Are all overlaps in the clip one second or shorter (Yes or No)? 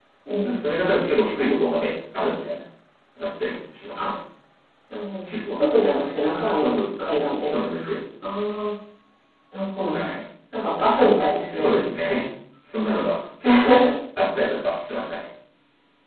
Yes